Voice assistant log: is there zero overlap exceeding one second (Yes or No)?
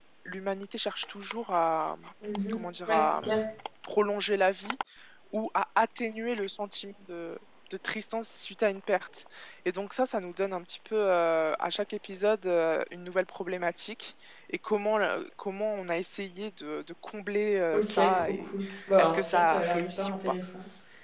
No